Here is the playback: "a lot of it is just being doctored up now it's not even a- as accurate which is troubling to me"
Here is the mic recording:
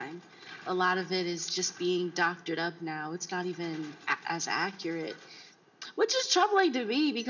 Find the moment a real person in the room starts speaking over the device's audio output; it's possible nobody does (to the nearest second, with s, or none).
none